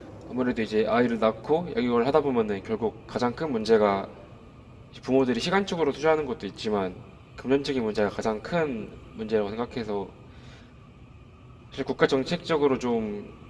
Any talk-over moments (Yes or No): No